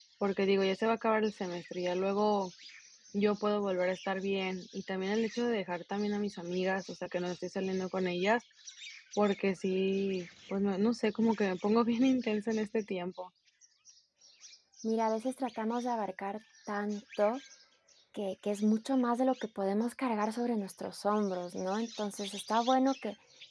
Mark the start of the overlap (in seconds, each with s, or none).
none